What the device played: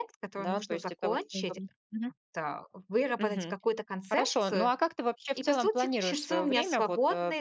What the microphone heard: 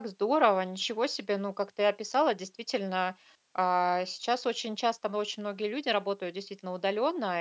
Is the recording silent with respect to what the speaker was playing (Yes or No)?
Yes